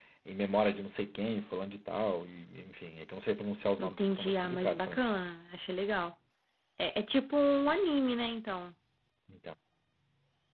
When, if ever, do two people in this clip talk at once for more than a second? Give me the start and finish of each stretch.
3.8-5.0

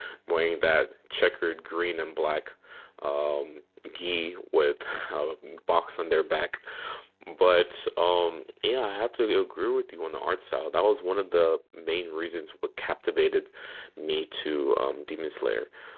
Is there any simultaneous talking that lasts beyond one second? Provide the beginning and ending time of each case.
none

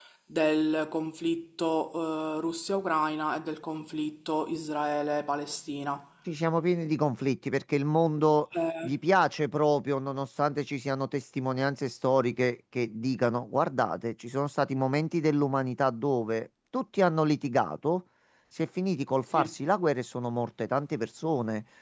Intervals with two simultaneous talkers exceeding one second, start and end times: none

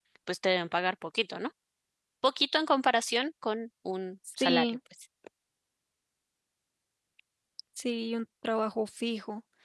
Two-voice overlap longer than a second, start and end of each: none

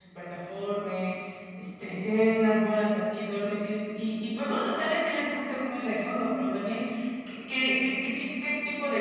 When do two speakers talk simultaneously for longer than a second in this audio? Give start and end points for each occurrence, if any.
none

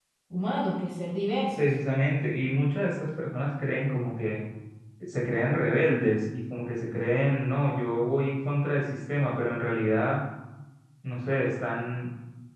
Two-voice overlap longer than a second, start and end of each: none

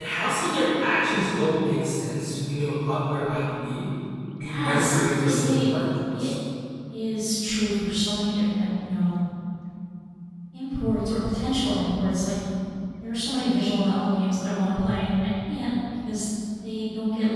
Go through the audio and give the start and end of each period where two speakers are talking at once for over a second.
4.4-5.7

